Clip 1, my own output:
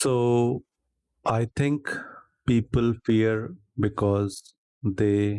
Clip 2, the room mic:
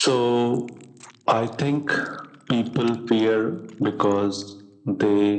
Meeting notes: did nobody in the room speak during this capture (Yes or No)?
Yes